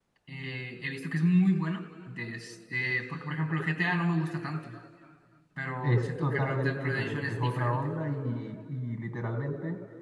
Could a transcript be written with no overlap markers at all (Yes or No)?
No